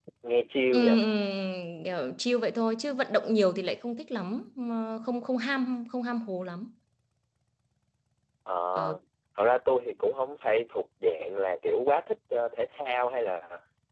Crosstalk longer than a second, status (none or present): none